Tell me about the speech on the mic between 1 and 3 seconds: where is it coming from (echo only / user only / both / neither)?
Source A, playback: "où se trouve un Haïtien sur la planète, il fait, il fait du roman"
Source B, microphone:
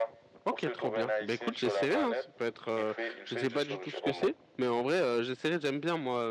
both